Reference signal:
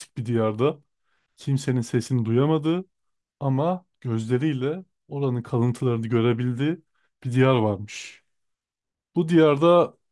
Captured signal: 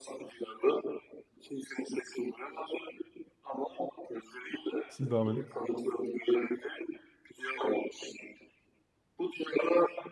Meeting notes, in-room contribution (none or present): present